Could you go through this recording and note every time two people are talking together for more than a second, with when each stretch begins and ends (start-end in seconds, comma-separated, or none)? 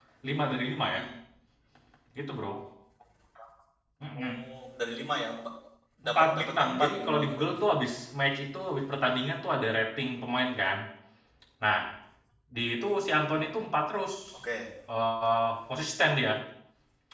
6.0-7.7